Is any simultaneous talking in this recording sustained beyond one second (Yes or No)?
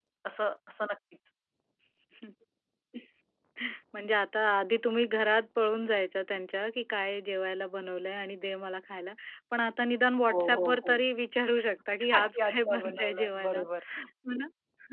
Yes